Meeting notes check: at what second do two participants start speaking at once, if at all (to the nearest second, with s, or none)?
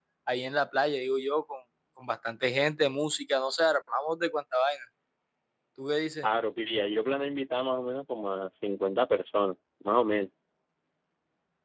none